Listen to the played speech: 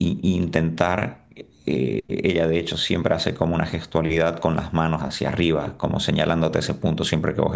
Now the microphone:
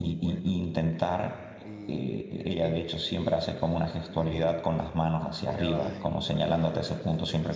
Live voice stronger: No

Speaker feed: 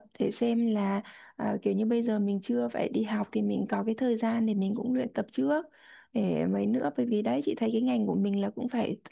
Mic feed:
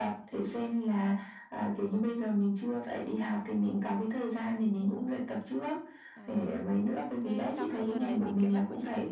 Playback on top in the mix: Yes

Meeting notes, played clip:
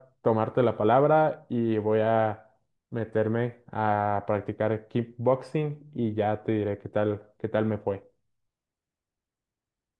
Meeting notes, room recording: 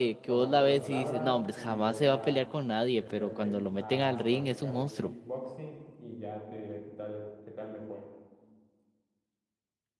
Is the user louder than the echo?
Yes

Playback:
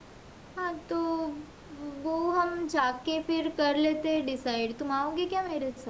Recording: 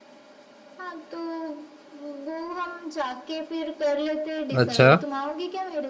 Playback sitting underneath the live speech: Yes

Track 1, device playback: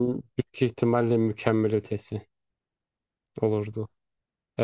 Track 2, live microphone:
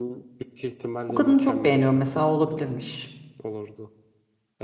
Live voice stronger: Yes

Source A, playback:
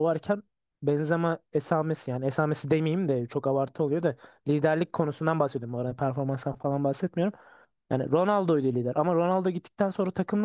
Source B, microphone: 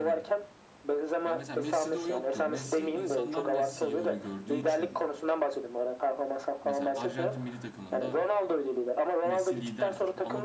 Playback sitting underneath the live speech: No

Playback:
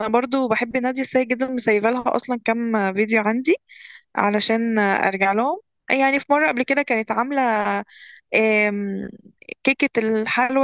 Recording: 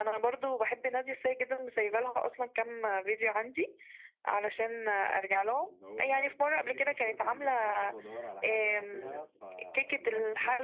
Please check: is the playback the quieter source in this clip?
No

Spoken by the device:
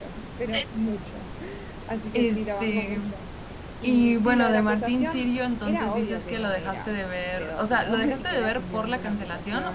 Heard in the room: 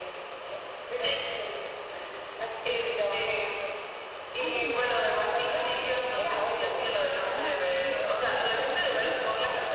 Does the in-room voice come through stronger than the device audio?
No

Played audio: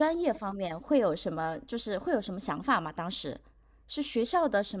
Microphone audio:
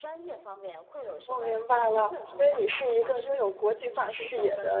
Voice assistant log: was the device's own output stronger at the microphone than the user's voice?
No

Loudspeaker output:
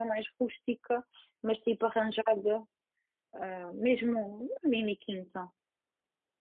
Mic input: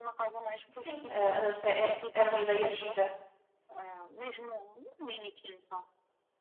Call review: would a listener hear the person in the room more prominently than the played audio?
Yes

